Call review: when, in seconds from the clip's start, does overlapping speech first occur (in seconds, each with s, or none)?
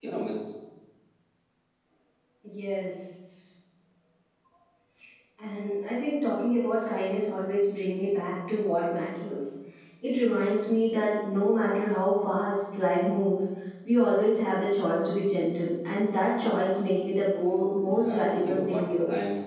17.7 s